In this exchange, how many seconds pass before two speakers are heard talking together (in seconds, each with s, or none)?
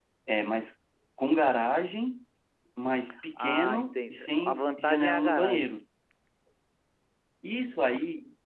3.4 s